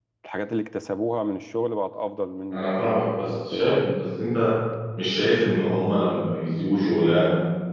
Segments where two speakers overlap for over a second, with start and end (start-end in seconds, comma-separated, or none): 2.5-3.9